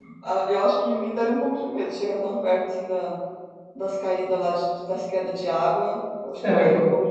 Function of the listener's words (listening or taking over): taking over